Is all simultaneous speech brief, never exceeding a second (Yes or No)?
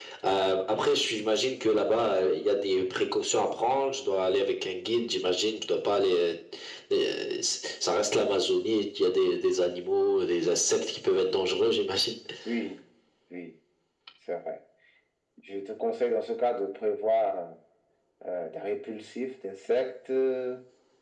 Yes